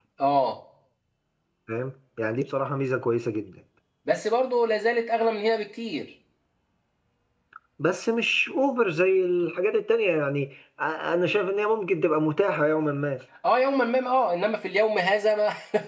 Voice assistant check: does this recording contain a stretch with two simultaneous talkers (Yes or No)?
No